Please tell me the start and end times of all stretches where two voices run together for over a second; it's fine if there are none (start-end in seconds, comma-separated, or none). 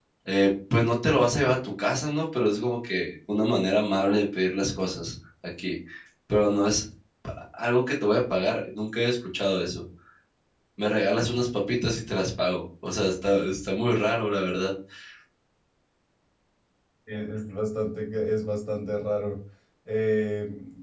none